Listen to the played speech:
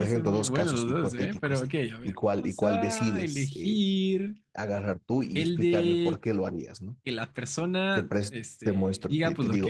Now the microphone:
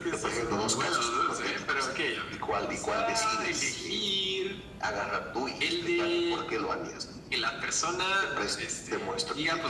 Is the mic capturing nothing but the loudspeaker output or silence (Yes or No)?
No